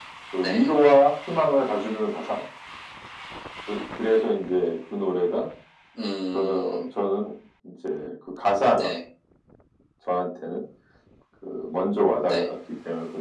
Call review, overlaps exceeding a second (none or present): none